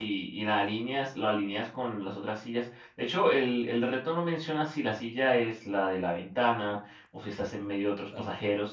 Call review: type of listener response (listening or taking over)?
listening